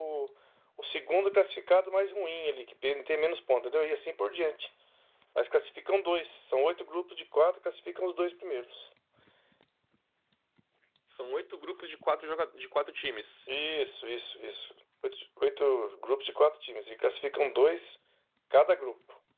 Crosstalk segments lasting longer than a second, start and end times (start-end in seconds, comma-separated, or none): none